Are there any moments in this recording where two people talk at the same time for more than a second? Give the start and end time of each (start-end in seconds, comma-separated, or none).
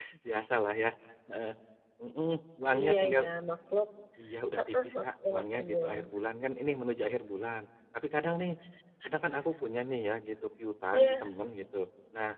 4.6-6.0